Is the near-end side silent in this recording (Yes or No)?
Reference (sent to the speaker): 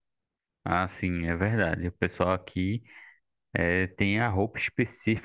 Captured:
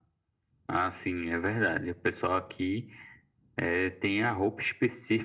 Yes